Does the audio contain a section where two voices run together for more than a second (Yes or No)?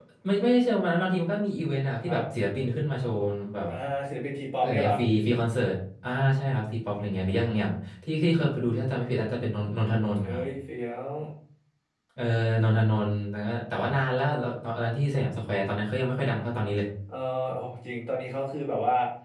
No